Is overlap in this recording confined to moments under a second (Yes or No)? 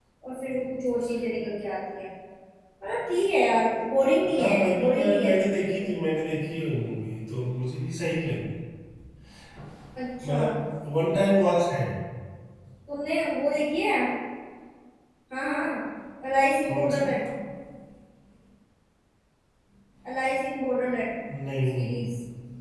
No